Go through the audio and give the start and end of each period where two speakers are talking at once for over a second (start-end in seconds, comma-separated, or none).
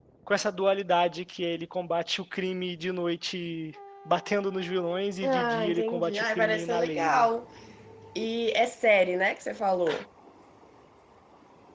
5.2-7.3